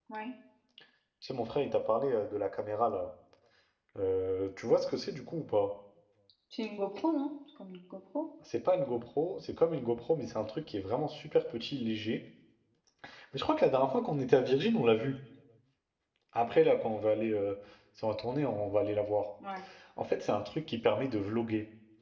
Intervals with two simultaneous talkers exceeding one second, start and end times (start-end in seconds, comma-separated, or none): none